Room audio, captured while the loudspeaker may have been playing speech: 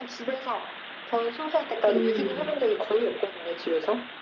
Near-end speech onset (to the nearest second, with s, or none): 2 s